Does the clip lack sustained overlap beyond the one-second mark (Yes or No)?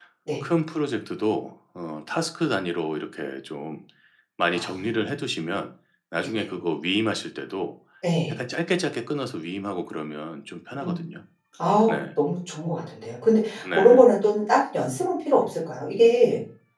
Yes